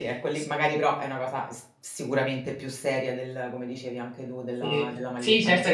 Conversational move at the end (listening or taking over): taking over